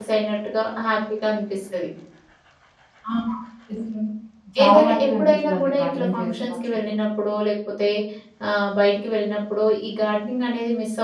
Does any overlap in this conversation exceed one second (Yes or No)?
Yes